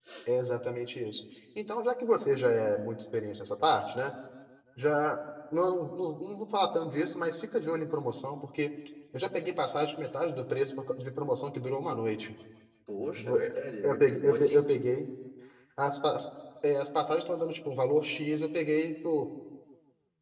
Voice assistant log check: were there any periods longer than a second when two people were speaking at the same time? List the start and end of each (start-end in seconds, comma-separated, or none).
13.2-14.7